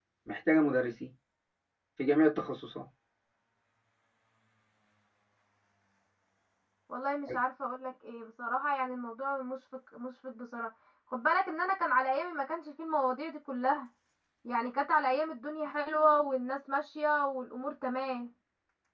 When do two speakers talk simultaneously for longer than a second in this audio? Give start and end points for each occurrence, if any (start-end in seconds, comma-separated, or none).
none